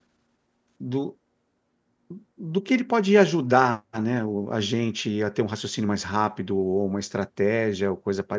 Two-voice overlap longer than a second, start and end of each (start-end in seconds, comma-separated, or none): none